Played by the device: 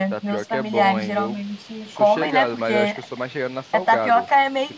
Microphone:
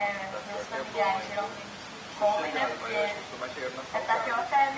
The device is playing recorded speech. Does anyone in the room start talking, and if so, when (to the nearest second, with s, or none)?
none